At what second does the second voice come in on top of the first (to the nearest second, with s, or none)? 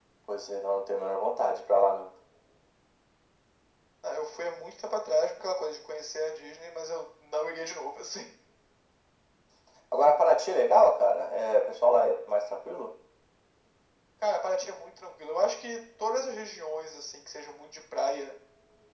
none